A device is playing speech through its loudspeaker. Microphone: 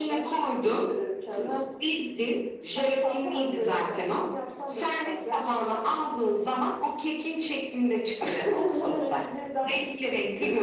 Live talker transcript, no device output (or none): none